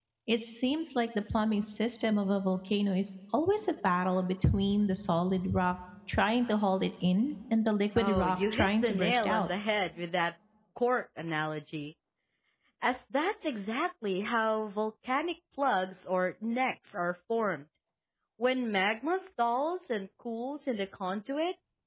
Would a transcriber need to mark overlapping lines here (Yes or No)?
Yes